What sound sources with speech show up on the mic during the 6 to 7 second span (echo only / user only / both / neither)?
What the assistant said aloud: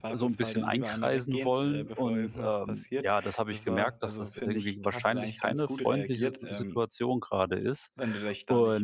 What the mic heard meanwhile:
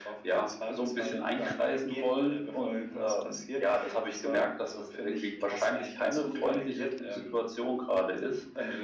echo only